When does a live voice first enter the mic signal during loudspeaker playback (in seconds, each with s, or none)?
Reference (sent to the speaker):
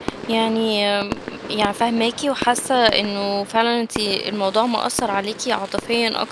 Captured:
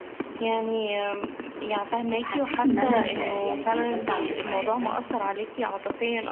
2.2 s